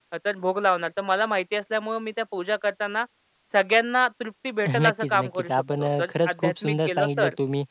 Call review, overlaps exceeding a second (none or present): present